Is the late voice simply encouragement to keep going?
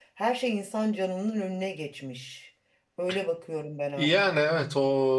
No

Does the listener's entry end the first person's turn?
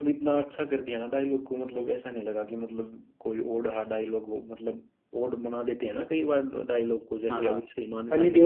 Yes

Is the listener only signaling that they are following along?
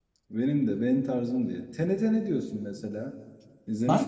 No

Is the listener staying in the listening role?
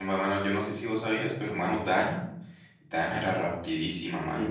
No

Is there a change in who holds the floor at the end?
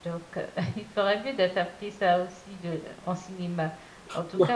No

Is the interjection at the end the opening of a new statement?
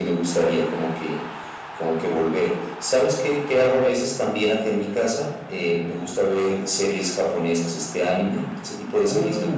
Yes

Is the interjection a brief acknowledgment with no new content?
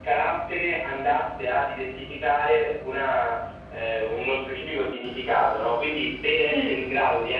Yes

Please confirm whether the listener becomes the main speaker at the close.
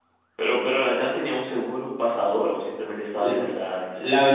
Yes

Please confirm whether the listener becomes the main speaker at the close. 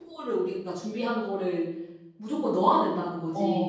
Yes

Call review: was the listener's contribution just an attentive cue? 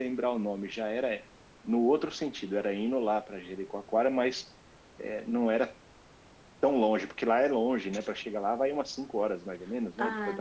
No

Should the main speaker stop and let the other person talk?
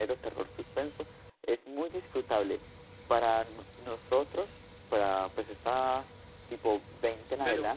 No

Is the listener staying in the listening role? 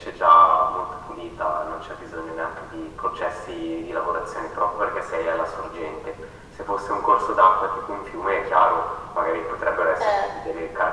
Yes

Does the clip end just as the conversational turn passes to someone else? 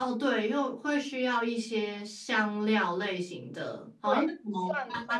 Yes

